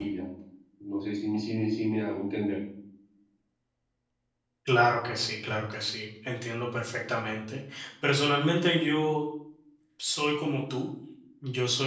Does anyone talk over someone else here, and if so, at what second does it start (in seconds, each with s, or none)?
none